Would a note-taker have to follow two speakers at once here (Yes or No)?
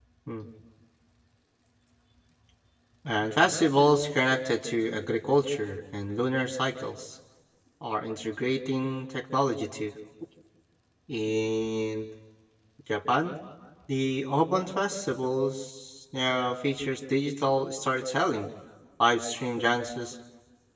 No